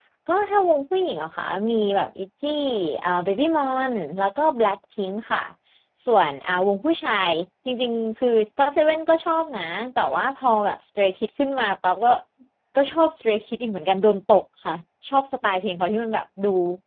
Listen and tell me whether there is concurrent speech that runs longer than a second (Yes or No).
No